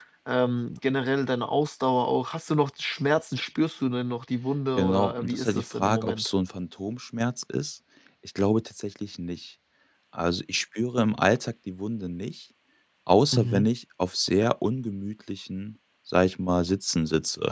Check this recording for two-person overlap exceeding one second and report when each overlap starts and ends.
4.8-6.3

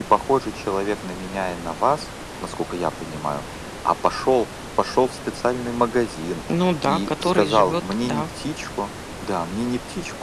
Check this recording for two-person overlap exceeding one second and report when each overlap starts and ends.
6.8-8.2

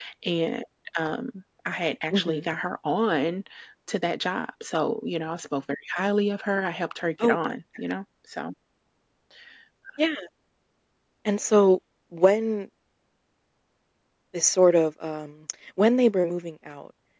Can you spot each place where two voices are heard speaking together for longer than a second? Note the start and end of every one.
none

